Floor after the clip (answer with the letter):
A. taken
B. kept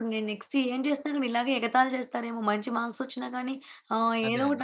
B